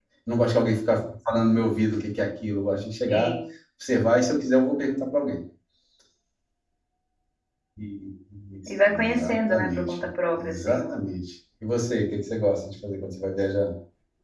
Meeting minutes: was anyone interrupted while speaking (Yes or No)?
Yes